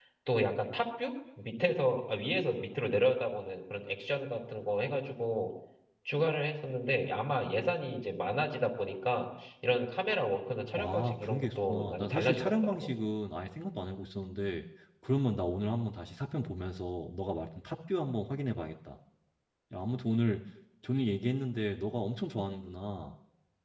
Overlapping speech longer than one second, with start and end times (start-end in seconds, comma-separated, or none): 10.8-12.9